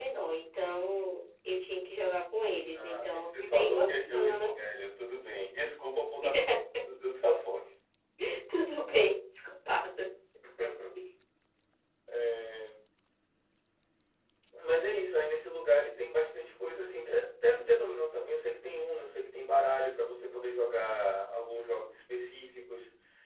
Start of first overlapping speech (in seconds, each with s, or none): 2.8 s